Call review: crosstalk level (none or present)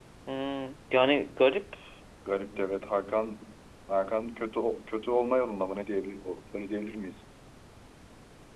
none